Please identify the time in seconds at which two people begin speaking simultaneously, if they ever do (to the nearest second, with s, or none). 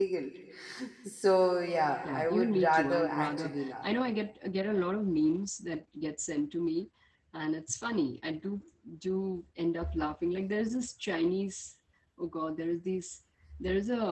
2 s